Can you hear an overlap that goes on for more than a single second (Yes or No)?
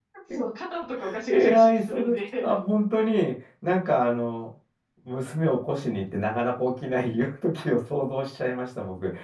Yes